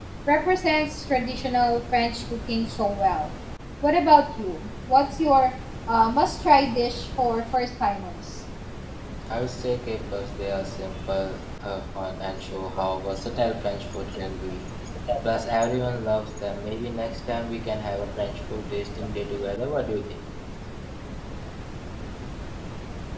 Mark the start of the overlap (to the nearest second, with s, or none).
none